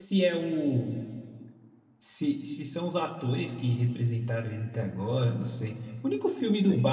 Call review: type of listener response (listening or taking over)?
listening